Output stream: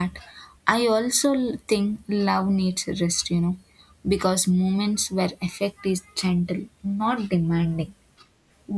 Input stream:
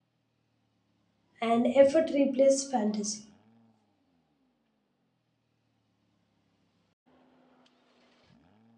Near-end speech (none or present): present